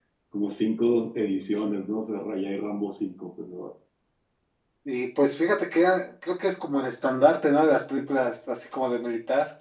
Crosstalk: none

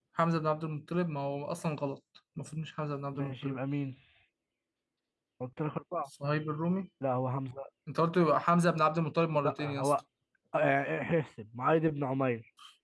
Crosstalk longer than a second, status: none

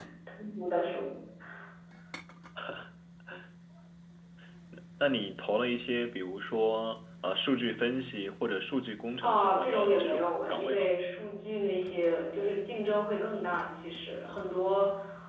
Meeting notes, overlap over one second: present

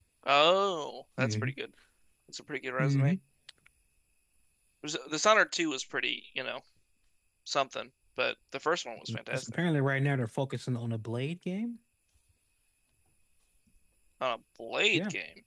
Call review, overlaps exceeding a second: none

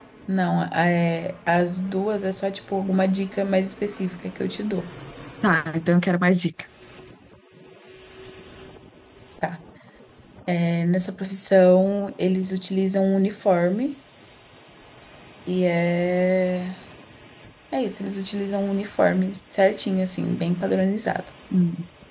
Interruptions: none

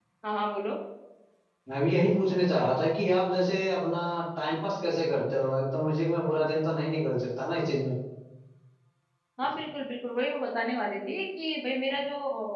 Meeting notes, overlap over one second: none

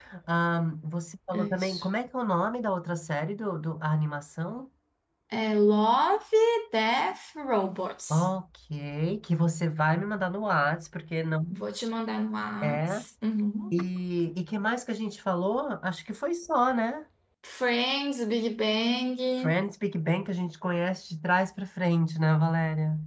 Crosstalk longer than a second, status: none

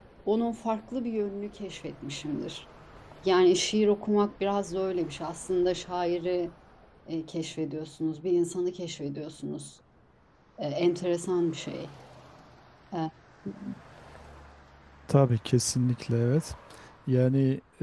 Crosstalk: none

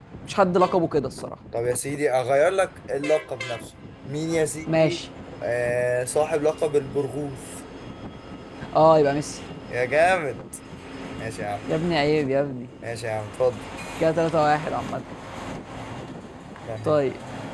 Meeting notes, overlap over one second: none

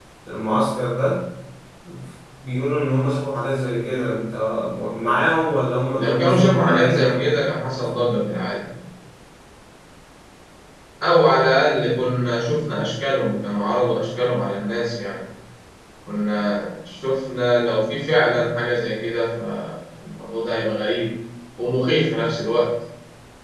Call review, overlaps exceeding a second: present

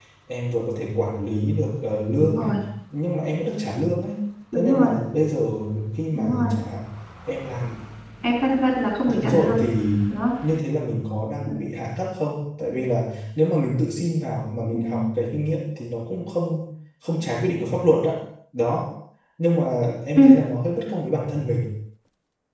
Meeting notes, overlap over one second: none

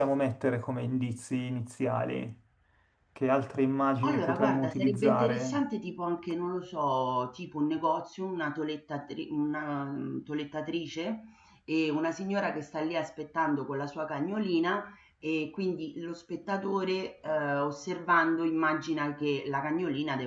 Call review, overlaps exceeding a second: present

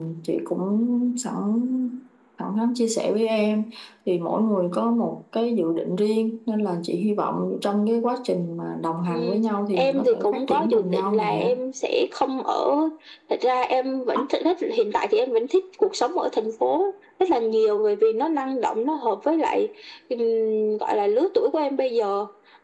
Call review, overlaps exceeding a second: present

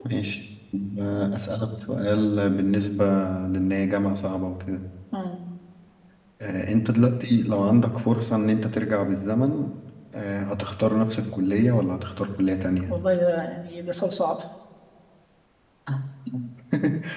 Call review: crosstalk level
none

